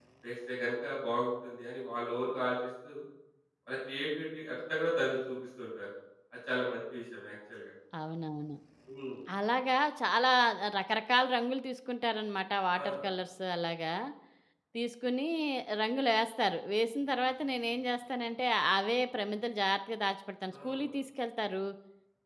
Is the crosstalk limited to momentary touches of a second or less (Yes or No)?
Yes